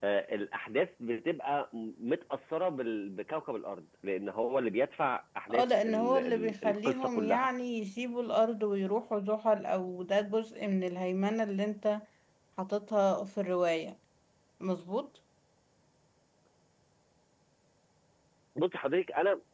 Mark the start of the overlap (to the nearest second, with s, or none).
5 s